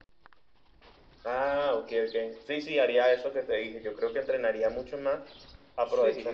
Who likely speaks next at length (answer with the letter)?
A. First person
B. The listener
A